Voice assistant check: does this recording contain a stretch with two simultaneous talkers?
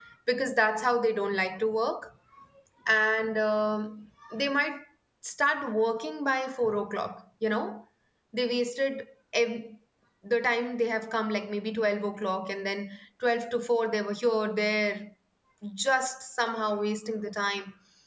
No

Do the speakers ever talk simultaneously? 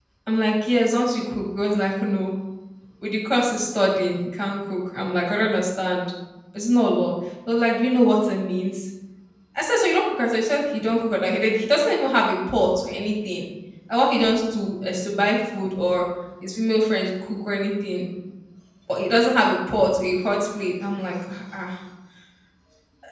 No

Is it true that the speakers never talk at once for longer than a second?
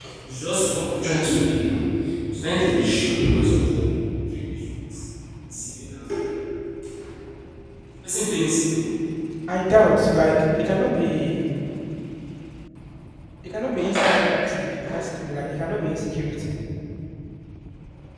Yes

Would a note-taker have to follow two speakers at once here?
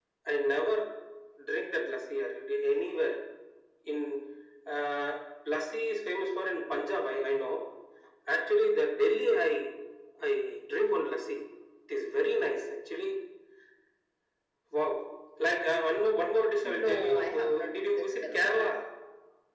Yes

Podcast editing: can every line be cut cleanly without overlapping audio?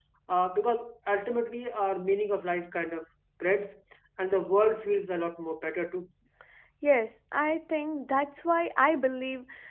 Yes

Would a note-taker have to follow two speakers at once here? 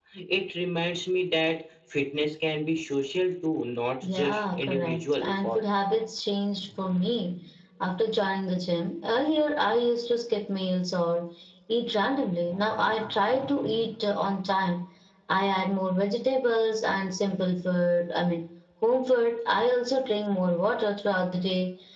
Yes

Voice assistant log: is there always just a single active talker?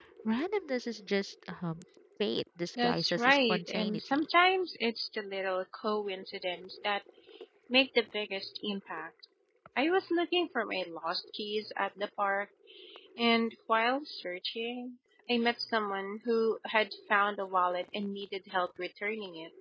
No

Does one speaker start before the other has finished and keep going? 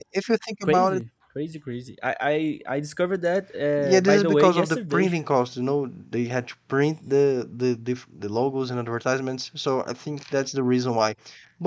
Yes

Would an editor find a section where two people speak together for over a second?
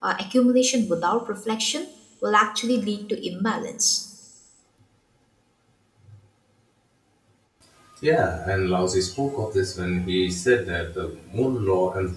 No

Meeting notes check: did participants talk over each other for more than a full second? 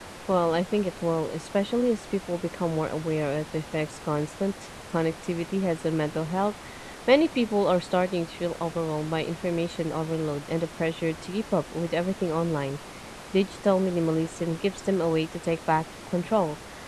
No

